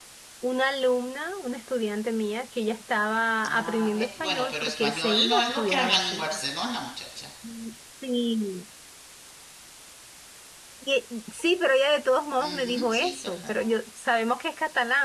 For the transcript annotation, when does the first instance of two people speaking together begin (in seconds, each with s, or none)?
3.5 s